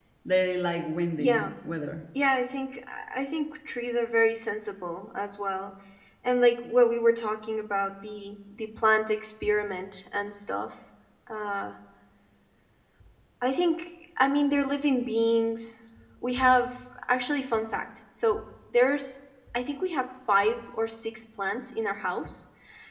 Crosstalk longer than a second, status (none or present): none